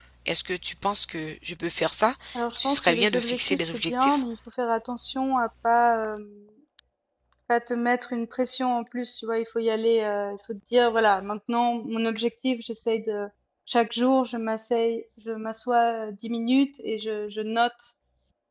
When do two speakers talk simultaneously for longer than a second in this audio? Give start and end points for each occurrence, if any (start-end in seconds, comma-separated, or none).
2.6-4.2